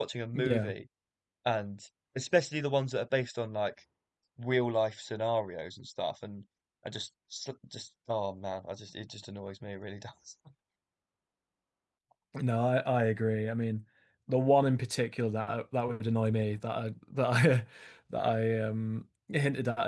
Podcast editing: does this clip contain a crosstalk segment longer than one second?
No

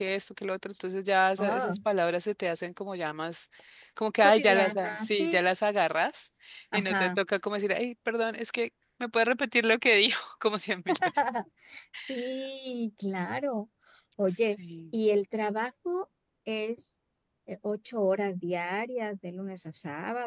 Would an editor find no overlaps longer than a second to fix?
No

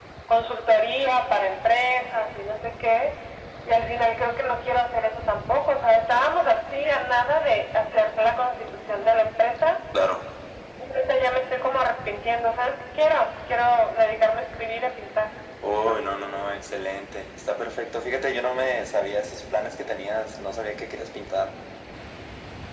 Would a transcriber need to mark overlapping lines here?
No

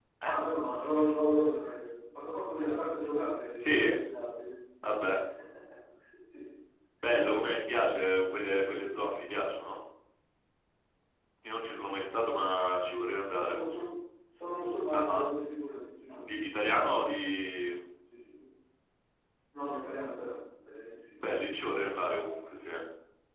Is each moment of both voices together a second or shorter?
Yes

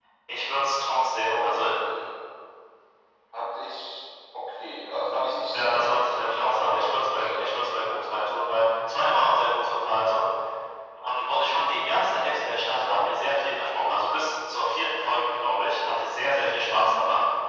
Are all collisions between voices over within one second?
No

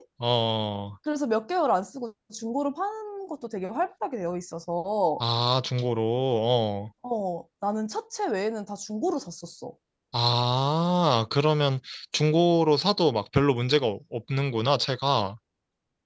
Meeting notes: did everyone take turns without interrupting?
Yes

